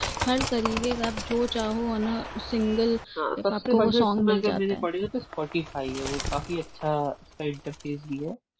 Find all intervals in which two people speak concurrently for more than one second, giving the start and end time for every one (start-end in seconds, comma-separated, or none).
3.4-4.9